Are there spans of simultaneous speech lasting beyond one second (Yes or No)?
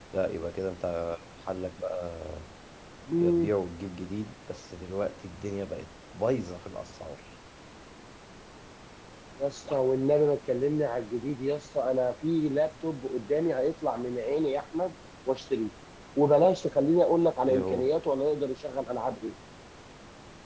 No